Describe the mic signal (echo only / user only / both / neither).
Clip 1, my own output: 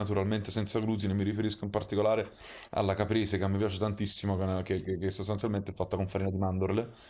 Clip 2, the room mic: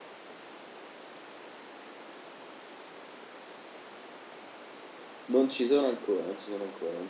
user only